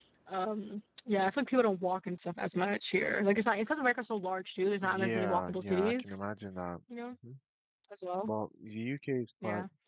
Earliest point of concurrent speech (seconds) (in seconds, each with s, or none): 4.8 s